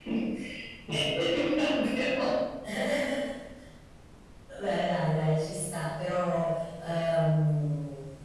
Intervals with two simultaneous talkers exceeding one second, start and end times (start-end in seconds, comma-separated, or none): none